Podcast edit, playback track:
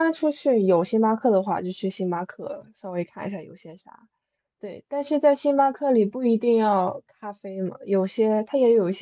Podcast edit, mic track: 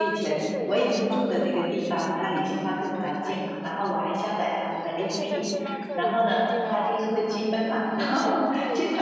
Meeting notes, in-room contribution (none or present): present